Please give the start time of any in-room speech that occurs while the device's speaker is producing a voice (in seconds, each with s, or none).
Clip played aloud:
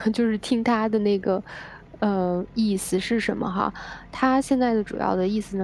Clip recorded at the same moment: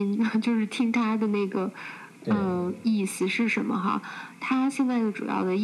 2.2 s